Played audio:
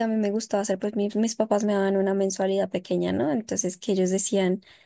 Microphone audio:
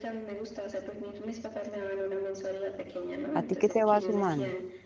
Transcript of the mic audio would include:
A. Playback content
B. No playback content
A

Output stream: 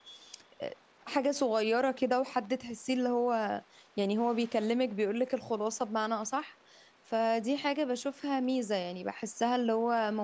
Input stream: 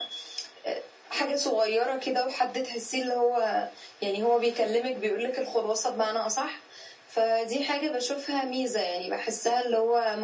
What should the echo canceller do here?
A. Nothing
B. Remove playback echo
B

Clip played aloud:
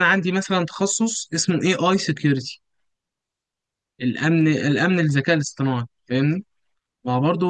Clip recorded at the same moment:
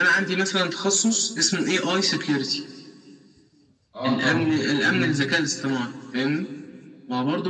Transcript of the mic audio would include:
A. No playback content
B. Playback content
B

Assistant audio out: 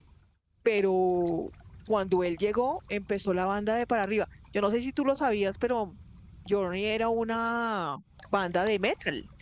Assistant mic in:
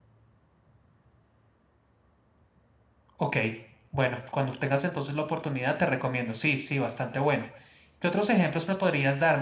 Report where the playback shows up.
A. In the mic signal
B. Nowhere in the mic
B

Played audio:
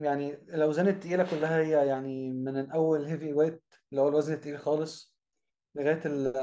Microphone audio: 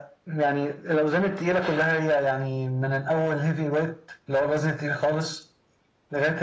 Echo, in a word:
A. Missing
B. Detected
B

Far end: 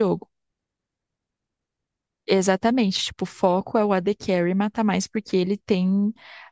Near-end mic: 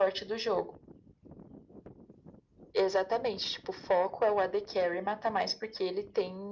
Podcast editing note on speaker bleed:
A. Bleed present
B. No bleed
A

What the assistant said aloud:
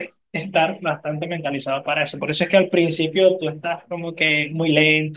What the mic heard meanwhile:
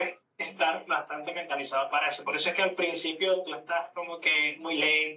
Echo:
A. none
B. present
B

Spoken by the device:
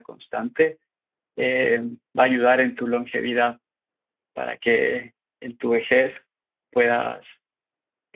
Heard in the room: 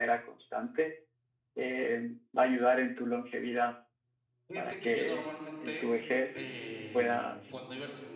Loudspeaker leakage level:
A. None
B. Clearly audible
B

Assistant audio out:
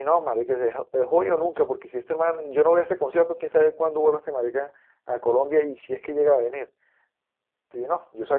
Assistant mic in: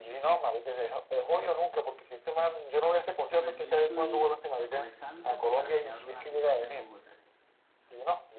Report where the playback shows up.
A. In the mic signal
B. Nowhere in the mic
A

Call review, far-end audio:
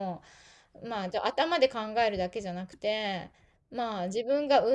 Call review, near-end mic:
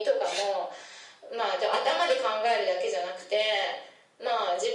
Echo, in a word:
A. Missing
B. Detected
B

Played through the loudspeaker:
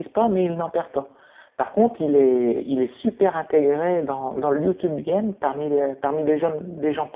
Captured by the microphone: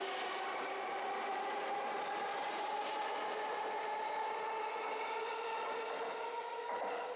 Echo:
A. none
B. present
A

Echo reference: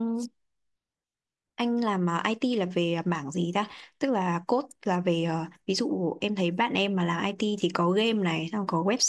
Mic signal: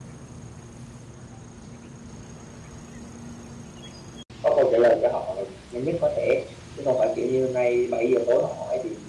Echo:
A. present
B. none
B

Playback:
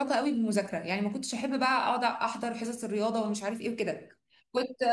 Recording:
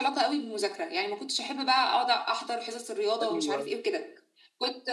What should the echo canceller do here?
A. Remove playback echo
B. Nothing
A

